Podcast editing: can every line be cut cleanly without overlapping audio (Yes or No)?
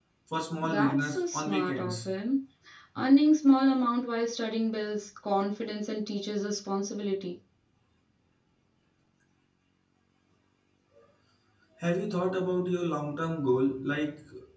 No